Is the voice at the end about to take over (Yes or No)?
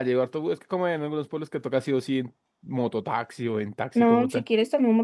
Yes